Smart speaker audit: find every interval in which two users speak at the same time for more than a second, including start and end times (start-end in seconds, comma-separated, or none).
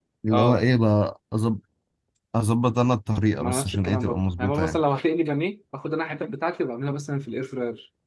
3.4-4.8